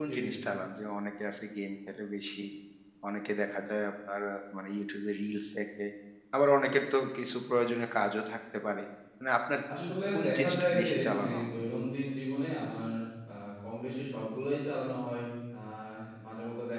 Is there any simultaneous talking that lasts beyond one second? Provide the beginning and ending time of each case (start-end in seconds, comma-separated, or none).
9.8-11.5